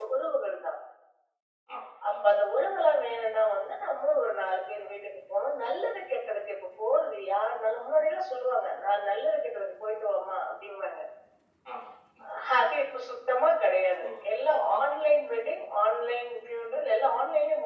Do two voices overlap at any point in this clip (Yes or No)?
Yes